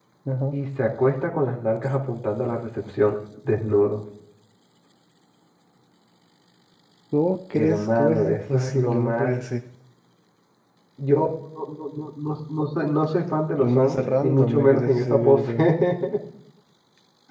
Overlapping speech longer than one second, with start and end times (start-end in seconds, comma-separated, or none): 7.5-9.3, 13.6-15.5